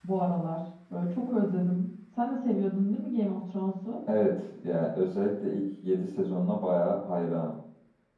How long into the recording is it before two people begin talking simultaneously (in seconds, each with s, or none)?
none